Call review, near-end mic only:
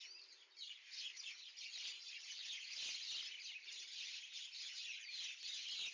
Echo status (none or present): none